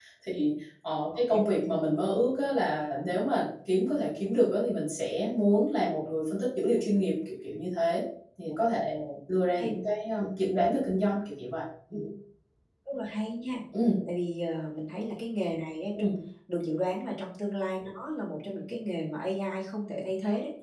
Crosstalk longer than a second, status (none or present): none